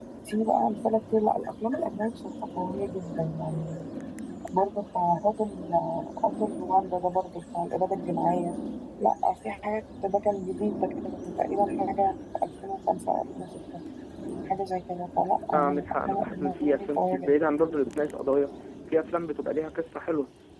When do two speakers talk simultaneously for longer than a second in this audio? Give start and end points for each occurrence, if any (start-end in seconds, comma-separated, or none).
15.5-17.2